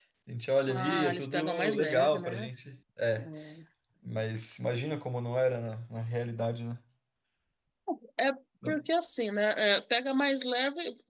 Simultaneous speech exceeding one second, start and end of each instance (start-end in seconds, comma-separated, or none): 0.7-2.5